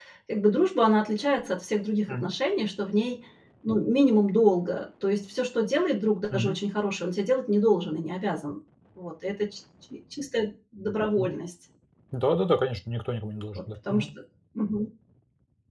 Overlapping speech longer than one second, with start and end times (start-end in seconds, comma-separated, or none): none